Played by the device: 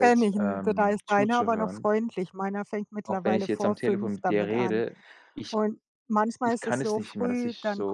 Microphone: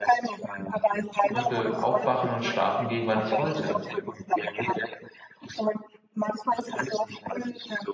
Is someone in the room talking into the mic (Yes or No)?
Yes